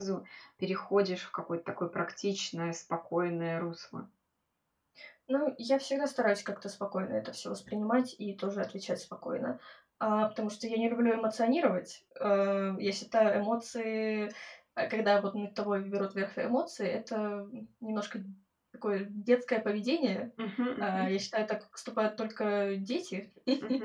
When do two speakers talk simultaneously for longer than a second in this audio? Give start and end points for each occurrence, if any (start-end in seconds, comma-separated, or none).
none